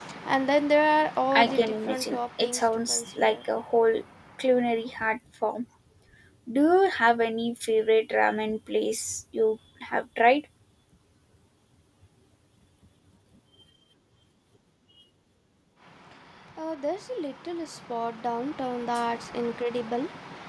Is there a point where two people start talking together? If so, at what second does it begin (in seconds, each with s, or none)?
1.3 s